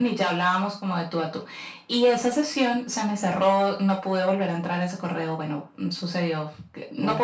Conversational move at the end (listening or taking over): listening